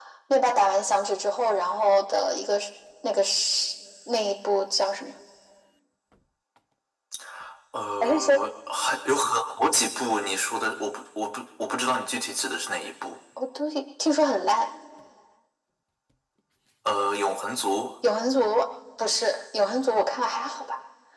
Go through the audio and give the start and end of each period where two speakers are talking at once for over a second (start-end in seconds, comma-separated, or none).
none